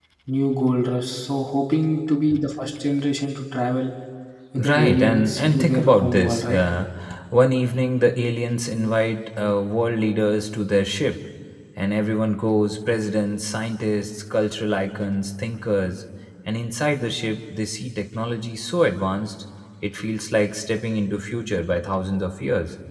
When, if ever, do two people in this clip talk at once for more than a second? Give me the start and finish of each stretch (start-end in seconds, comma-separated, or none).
4.7-6.6